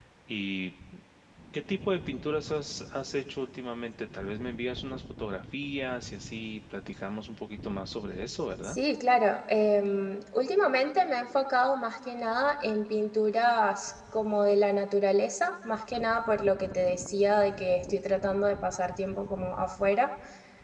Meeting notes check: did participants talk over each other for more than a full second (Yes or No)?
No